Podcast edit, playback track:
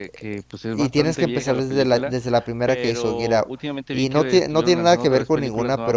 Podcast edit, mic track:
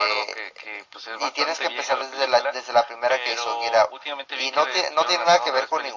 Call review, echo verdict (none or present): present